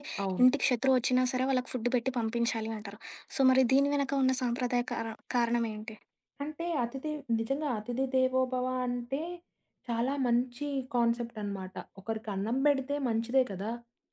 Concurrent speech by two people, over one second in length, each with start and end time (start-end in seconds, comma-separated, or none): none